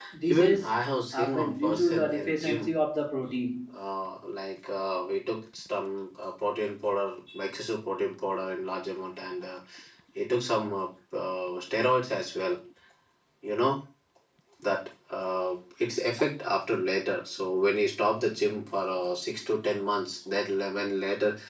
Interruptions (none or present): present